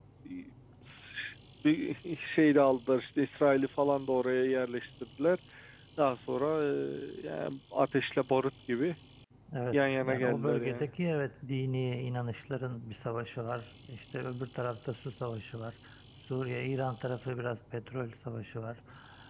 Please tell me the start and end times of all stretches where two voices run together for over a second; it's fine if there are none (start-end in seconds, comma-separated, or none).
9.7-10.9